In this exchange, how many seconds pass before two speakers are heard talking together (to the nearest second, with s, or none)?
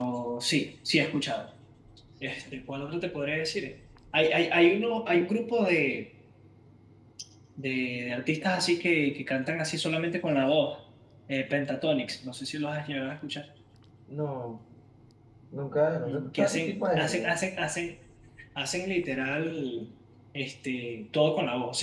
16 s